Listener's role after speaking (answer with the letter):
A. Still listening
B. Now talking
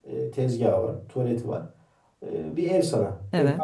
A